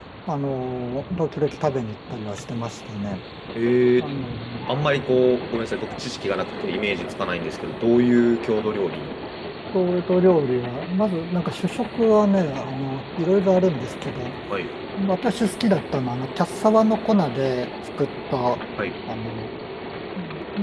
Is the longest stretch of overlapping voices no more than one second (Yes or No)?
Yes